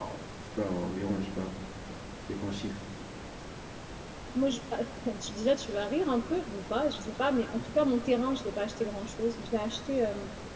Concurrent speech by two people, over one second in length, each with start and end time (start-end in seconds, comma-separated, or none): none